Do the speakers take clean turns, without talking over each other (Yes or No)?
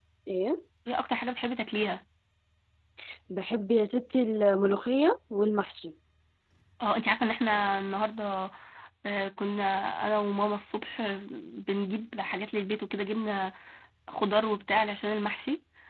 Yes